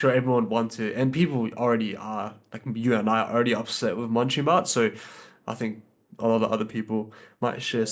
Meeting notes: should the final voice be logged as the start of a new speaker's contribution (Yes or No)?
Yes